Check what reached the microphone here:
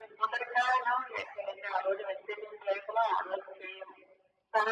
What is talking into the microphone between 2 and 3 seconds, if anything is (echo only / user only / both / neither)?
echo only